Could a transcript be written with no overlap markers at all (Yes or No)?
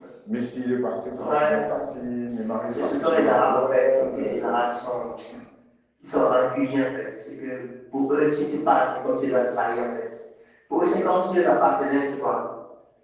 No